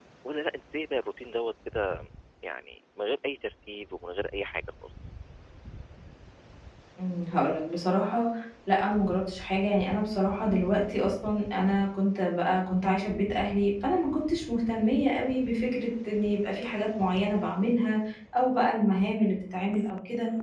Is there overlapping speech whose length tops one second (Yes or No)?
No